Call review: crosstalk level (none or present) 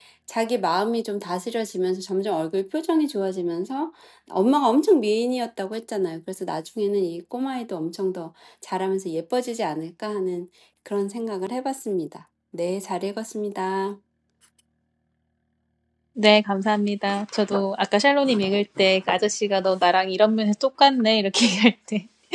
none